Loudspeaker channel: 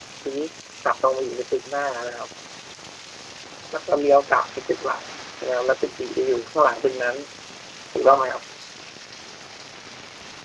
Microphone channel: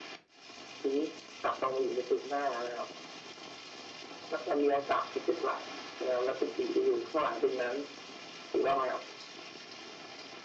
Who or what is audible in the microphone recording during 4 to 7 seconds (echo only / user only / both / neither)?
echo only